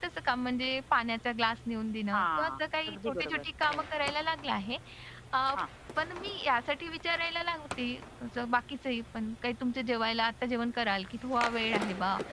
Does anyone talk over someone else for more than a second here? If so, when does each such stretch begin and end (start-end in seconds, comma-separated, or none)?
2.1-3.8